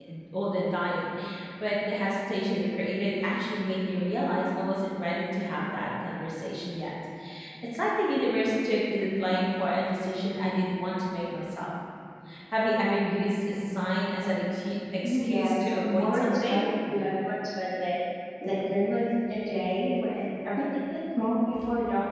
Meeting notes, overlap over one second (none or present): present